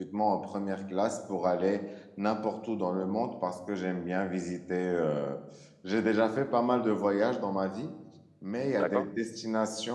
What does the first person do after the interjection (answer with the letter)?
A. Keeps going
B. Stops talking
A